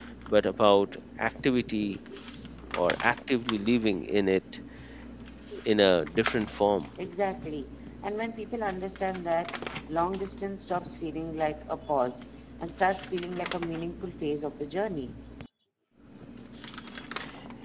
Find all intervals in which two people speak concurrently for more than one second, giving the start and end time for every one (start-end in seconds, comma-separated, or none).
none